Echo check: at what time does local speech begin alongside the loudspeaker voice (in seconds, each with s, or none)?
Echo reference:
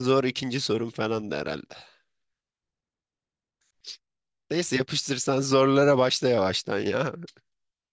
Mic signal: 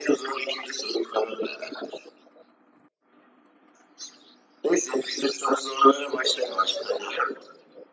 none